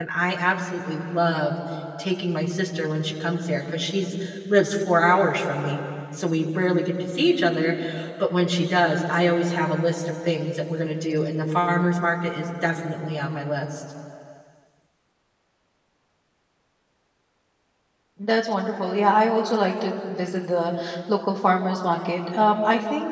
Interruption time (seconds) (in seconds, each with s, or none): none